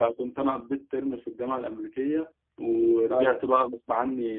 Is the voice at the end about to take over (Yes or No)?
No